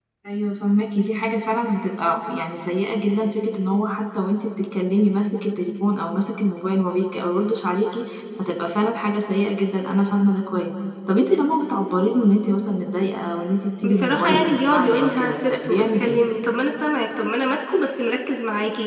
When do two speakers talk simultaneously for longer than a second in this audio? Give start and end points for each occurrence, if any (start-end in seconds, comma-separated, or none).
13.8-16.2